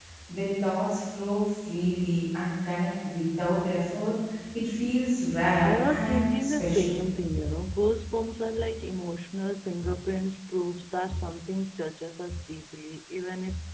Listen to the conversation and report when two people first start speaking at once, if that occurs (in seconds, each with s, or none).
5.6 s